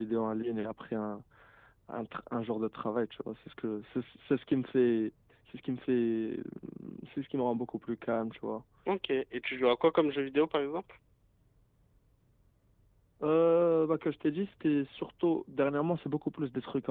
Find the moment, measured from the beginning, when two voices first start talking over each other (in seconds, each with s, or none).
none